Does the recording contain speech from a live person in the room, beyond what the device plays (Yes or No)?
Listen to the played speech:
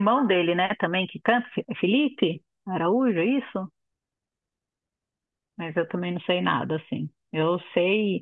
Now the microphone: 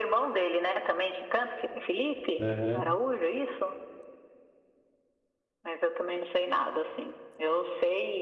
Yes